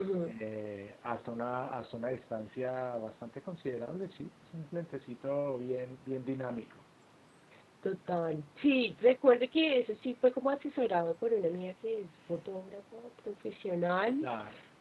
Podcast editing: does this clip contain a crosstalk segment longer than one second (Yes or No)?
No